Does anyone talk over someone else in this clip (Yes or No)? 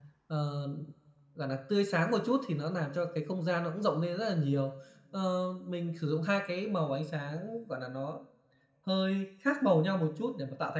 No